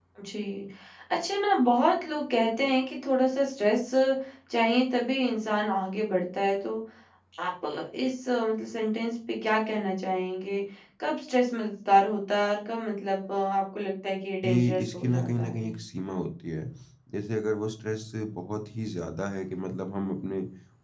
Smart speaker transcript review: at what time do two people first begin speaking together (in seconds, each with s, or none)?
14.4 s